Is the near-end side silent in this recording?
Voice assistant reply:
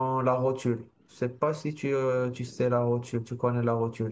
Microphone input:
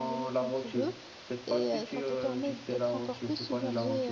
No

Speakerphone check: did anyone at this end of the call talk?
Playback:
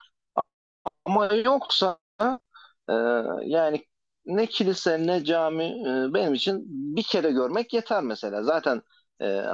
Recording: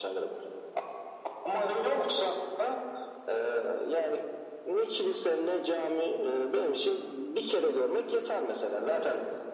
No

